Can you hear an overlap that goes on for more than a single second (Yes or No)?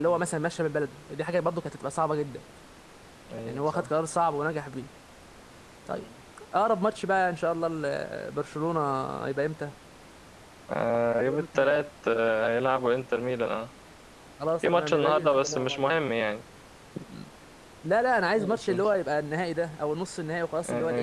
Yes